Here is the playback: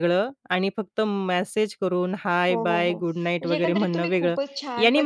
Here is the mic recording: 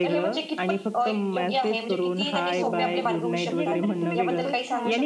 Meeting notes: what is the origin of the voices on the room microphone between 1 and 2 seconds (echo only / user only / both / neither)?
both